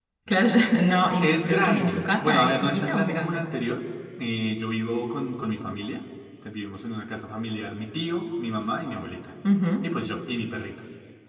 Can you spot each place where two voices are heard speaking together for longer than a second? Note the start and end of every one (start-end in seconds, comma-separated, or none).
1.2-3.4